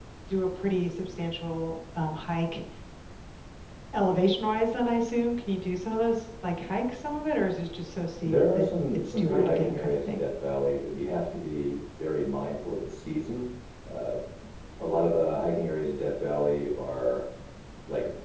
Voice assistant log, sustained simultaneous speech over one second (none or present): present